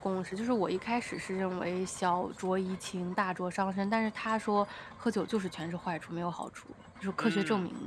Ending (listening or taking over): taking over